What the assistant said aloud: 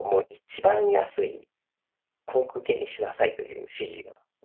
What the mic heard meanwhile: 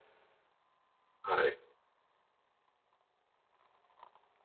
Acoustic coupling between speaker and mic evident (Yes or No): No